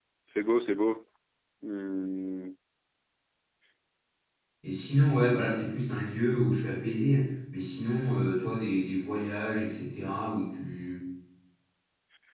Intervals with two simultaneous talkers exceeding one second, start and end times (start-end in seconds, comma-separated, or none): none